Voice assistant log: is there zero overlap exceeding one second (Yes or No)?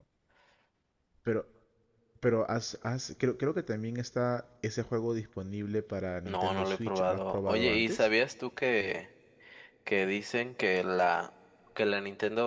No